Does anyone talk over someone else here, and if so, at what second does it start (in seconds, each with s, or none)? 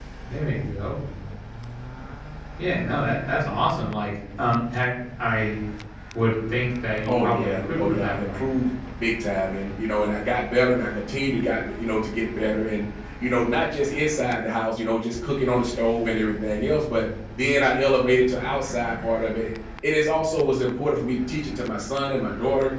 7.1 s